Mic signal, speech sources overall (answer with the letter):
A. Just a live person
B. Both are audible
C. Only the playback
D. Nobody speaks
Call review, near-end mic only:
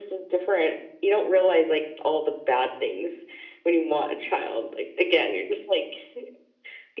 C